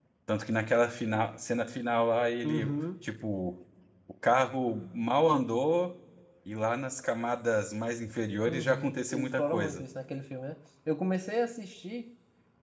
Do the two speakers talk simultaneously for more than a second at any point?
Yes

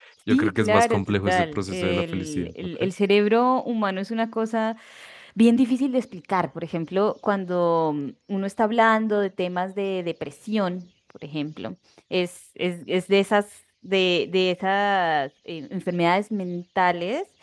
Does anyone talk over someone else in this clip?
Yes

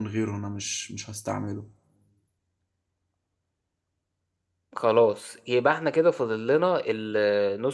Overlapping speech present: No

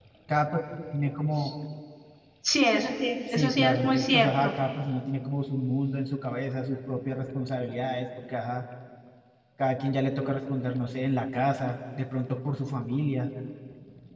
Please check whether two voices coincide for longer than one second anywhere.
Yes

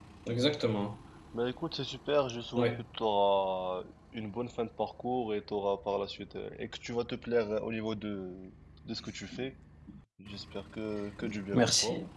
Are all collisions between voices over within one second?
Yes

